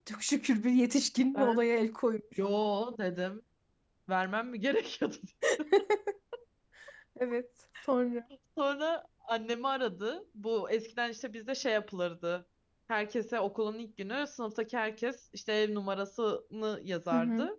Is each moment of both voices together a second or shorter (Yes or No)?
Yes